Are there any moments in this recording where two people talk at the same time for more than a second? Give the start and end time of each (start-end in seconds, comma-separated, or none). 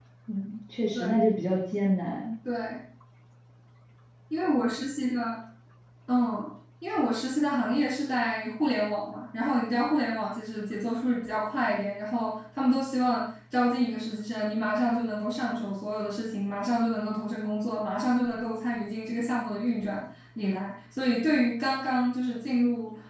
none